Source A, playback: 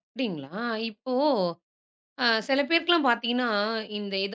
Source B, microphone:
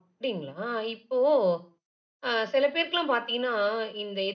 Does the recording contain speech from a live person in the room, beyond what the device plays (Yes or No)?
No